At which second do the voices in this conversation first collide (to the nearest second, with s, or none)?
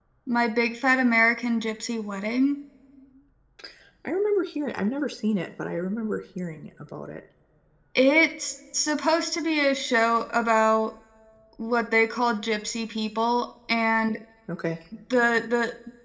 none